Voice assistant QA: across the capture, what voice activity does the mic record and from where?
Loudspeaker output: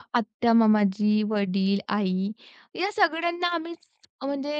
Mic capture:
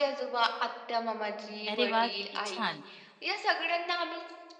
both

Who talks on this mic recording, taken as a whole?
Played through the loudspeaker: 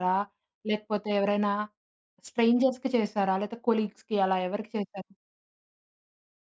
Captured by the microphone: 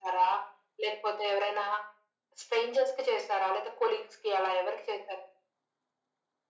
echo only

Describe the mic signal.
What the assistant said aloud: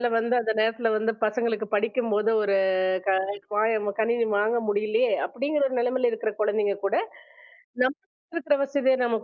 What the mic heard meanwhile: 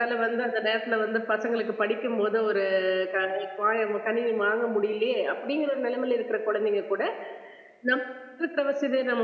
echo only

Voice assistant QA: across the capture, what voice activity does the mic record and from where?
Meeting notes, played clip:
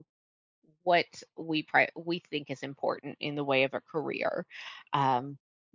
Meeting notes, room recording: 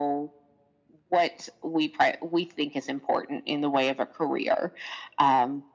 echo only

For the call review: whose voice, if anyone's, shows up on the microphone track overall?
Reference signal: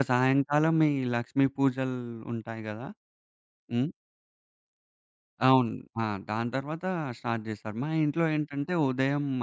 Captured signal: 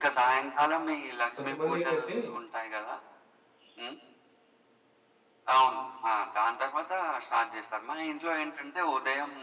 both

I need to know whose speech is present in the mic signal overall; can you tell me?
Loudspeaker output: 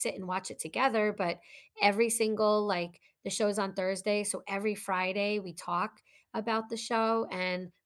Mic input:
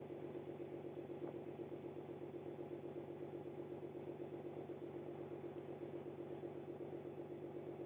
neither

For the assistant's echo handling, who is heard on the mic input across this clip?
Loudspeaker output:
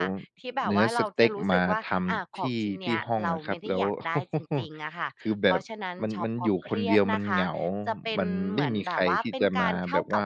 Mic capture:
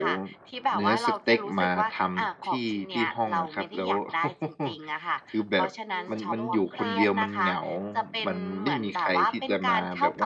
both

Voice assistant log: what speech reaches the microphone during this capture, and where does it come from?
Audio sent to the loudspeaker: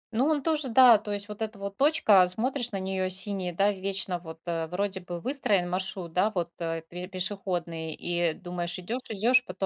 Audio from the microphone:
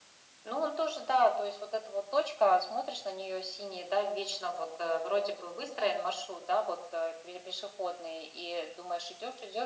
echo only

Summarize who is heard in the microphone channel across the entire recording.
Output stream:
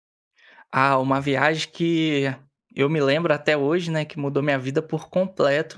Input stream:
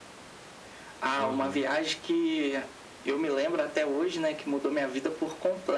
both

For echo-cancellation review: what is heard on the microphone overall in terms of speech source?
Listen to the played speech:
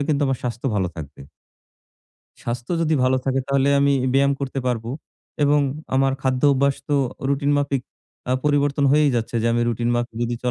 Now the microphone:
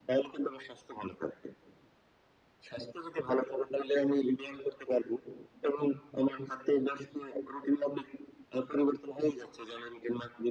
echo only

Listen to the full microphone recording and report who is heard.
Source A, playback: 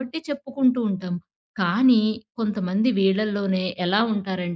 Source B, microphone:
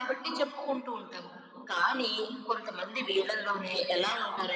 echo only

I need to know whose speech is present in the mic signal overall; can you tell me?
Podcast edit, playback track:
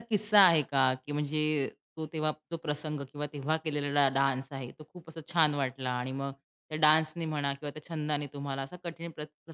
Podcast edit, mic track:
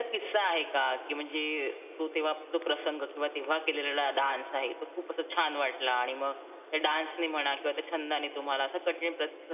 echo only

